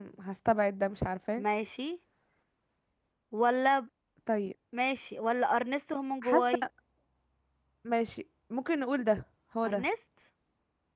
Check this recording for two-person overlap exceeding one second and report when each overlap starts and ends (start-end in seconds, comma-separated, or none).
none